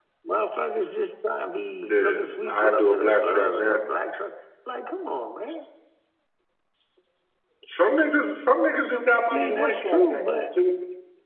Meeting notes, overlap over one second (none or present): present